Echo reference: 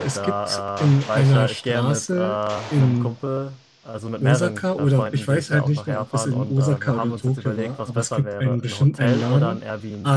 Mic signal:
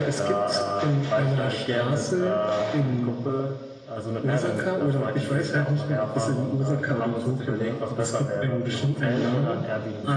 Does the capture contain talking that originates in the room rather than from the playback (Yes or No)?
No